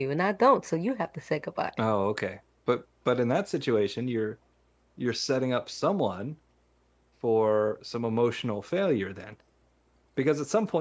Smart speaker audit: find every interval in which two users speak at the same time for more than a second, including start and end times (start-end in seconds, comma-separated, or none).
none